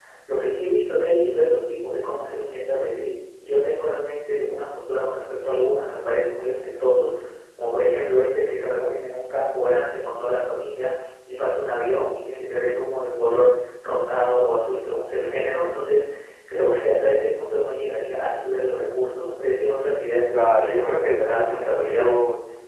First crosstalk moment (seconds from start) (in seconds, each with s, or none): 20.3 s